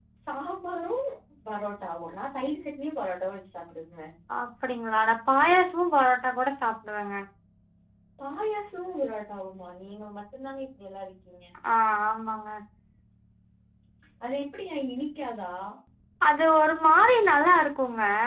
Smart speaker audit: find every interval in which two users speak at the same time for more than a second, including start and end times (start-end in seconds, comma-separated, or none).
none